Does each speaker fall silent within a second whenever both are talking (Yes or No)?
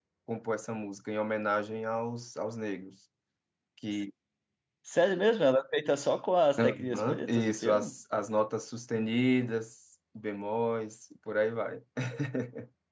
No